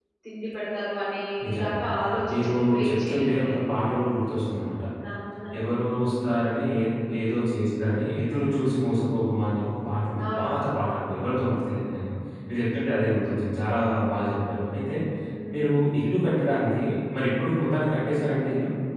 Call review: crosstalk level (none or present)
present